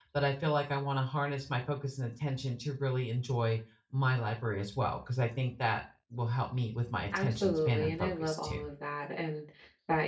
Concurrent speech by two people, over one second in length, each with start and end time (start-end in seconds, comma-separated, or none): 7.1-8.7